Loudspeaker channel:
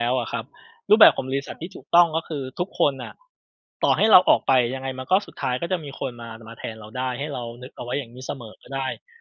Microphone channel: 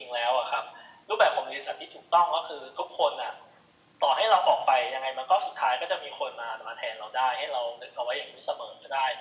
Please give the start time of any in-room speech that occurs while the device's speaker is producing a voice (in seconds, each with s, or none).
none